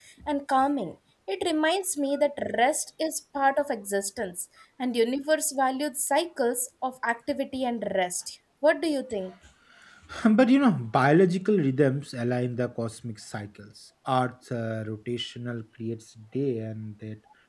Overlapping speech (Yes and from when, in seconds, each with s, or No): No